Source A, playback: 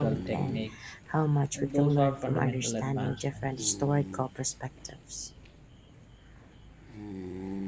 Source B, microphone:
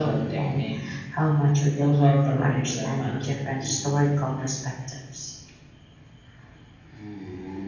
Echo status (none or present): present